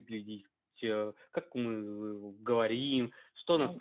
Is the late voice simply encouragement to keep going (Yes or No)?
Yes